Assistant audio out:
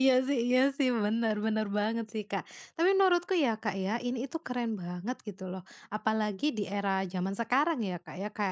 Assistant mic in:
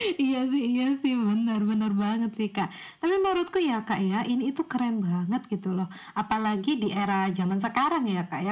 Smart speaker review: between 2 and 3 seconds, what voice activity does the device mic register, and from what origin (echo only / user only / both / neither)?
echo only